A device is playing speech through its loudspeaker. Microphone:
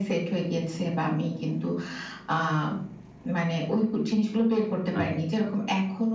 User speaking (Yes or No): Yes